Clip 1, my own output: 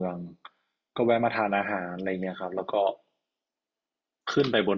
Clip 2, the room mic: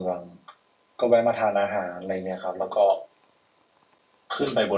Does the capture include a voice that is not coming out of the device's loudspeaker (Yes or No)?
No